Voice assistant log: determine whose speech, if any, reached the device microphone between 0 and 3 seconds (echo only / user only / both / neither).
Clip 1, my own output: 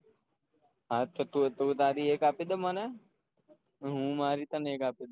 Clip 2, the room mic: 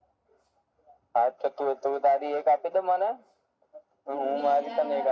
echo only